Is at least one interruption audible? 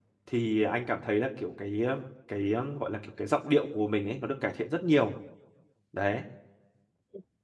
No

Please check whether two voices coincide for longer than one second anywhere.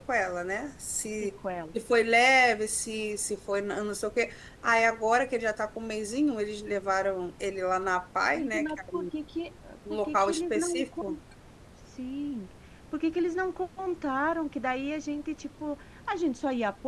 Yes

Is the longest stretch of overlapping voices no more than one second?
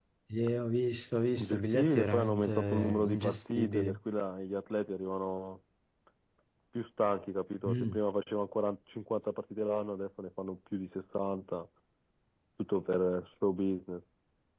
No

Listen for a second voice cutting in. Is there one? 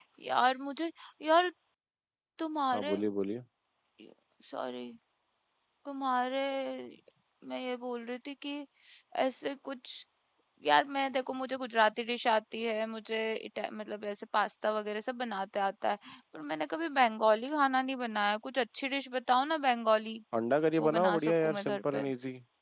Yes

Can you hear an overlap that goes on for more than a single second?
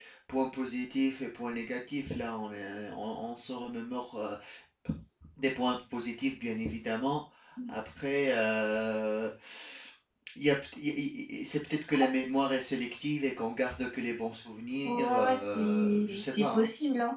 Yes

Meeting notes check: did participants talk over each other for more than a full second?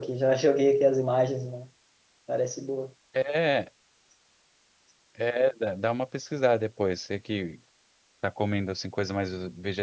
No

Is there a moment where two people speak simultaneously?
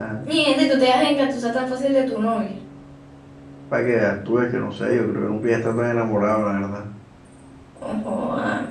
No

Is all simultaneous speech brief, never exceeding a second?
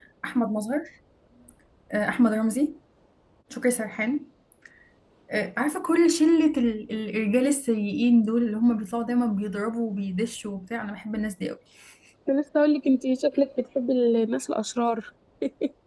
Yes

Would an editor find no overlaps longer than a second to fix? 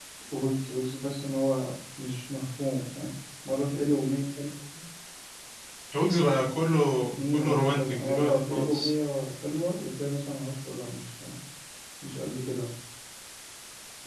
No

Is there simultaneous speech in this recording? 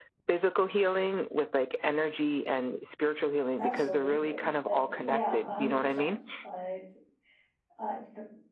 Yes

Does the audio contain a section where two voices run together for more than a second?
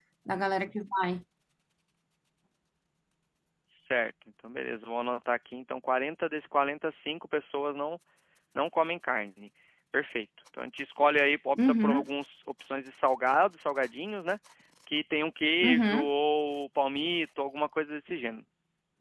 No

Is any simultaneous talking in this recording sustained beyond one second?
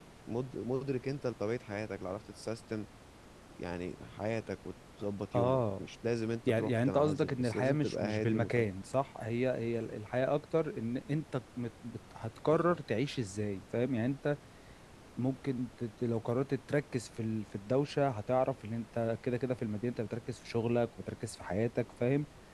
Yes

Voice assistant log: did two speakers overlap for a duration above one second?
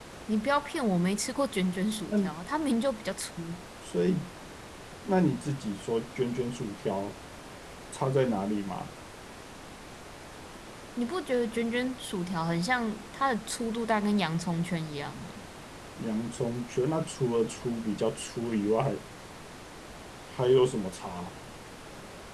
No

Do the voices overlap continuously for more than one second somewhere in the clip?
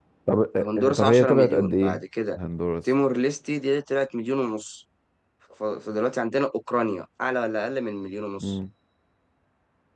Yes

